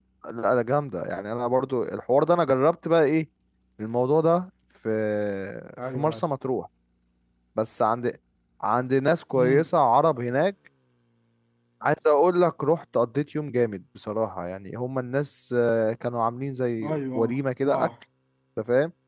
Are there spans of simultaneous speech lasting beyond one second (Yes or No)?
No